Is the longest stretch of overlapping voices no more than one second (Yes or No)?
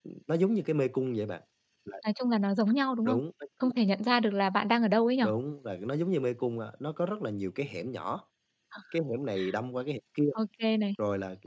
Yes